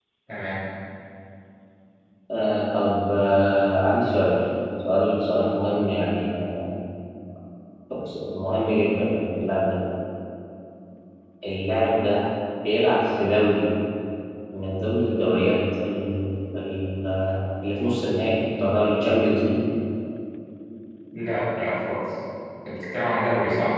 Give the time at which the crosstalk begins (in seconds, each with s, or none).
none